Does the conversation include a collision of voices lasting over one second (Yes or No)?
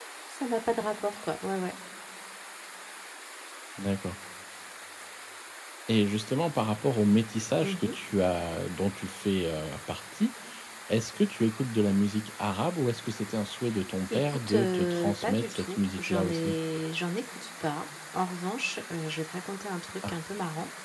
Yes